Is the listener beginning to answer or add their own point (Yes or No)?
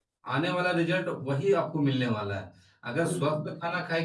No